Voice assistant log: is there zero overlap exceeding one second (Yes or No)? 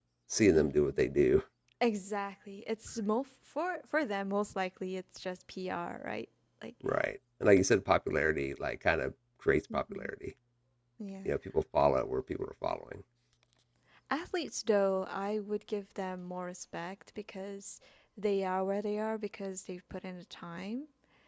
Yes